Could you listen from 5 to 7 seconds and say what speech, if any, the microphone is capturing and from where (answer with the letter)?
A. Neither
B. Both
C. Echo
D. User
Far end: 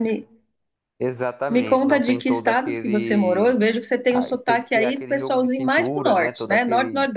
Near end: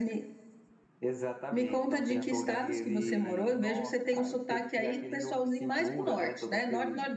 C